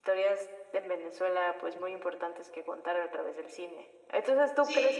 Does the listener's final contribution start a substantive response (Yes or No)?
No